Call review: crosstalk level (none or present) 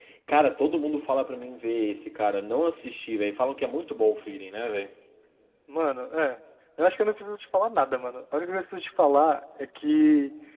none